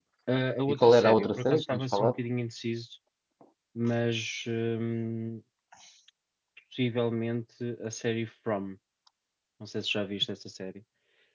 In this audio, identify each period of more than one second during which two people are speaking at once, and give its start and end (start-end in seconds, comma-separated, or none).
0.7-2.2